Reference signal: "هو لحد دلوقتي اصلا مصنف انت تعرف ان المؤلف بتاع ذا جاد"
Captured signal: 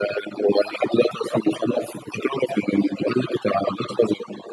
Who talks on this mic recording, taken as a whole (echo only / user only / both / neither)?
echo only